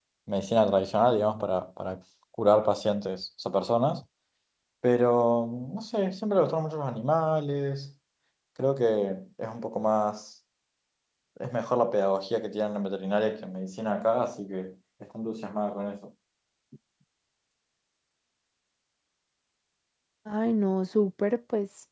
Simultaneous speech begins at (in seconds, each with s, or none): none